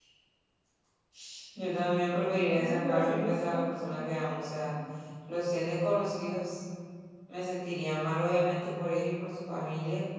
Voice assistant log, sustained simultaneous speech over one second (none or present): present